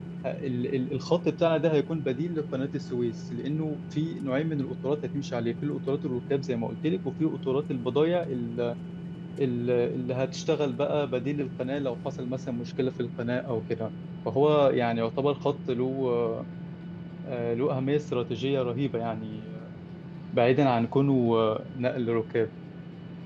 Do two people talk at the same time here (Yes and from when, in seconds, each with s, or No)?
No